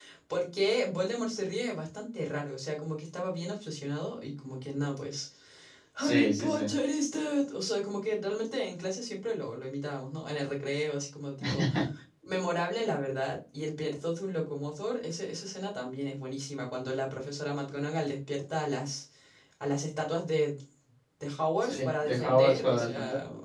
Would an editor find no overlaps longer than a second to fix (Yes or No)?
No